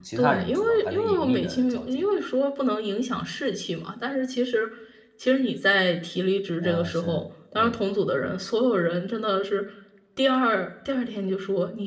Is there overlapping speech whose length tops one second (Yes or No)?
Yes